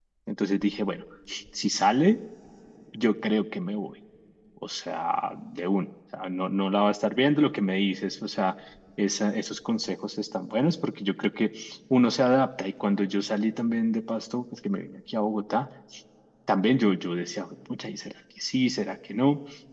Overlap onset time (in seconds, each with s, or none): none